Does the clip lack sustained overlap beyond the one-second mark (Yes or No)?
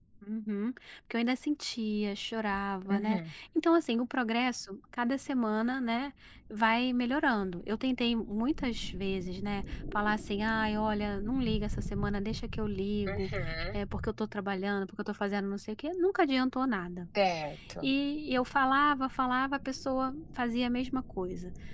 Yes